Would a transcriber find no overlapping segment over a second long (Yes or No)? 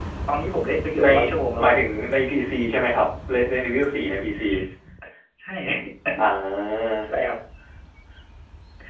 Yes